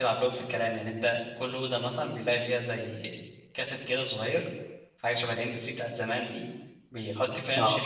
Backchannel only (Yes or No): Yes